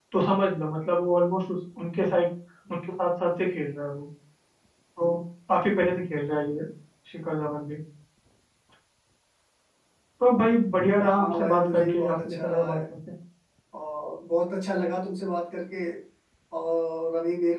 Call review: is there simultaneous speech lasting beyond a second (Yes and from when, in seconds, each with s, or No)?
Yes, from 11.0 s